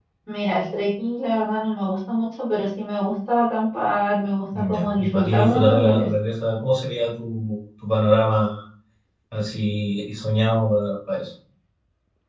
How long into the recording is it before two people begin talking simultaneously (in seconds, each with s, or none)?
4.5 s